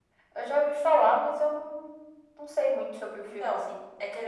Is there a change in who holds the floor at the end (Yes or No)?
Yes